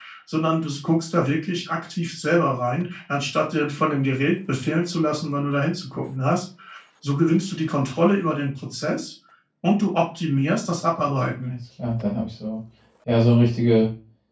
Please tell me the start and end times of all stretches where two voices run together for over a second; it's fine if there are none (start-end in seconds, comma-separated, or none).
none